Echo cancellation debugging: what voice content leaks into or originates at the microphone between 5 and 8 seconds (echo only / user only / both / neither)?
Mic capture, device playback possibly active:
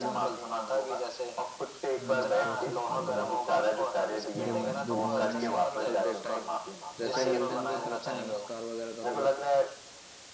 both